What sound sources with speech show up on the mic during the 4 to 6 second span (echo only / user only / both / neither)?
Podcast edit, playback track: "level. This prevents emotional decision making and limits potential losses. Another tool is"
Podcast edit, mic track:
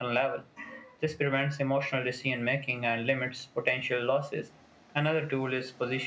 echo only